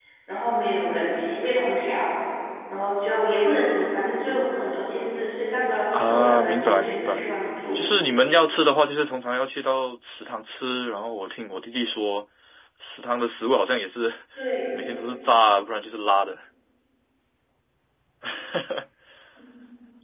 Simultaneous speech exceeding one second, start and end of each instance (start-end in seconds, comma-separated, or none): 5.9-7.3